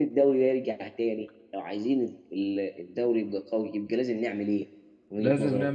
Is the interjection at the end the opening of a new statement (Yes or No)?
Yes